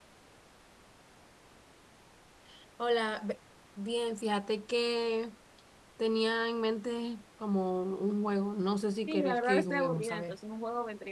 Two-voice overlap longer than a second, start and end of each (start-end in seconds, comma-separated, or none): 9.1-10.3